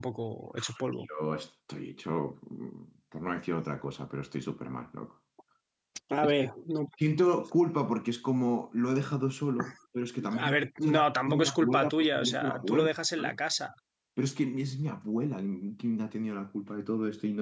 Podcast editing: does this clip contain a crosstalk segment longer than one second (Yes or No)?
Yes